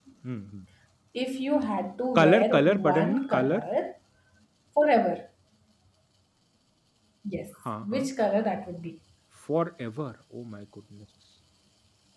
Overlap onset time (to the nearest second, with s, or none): 2 s